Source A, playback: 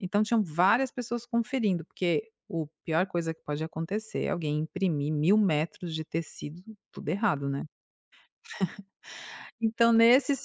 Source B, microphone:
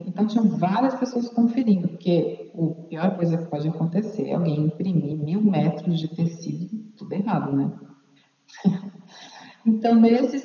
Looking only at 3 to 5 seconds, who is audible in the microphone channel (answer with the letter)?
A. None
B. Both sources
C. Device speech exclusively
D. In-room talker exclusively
C